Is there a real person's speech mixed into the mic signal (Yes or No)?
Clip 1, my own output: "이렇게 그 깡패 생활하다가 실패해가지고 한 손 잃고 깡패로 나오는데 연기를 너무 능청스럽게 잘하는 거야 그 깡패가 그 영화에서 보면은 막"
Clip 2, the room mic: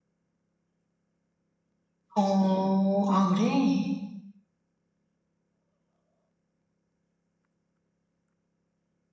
Yes